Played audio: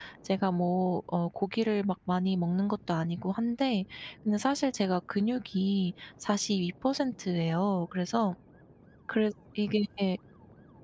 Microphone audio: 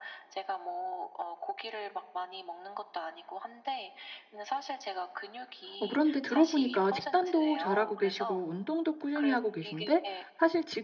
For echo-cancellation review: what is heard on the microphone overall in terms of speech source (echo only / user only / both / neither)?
both